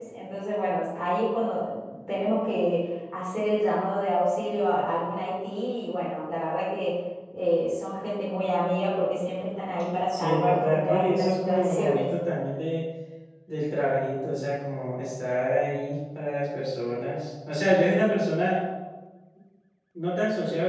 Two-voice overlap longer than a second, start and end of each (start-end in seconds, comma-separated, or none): 10.1-12.1